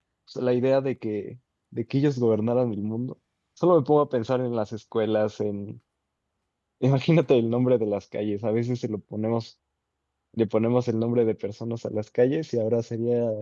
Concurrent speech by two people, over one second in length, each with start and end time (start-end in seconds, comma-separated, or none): none